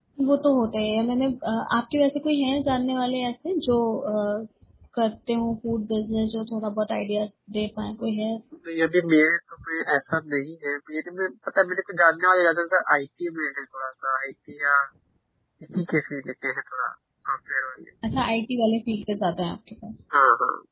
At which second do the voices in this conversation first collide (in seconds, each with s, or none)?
none